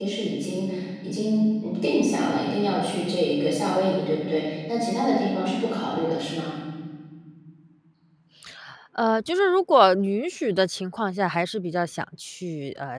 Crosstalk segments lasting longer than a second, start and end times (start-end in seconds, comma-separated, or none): none